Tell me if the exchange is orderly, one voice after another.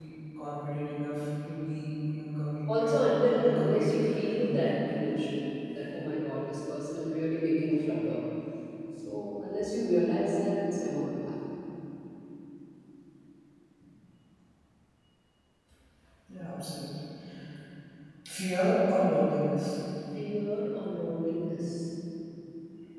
No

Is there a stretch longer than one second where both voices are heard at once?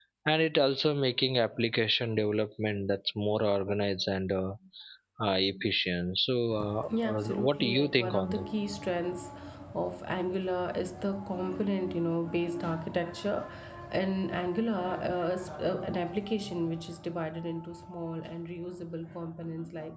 Yes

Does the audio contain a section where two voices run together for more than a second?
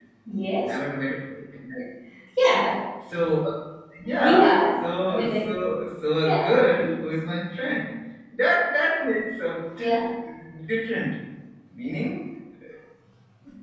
Yes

